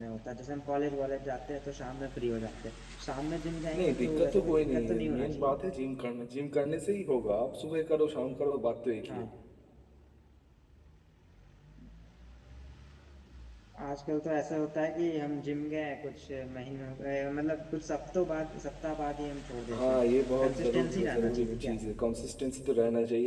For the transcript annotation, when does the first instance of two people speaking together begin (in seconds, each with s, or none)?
3.7 s